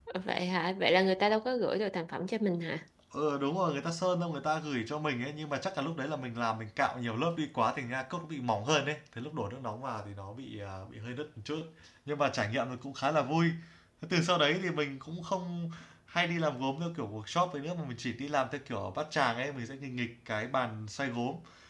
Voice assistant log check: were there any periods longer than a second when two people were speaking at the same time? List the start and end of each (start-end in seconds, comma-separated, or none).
none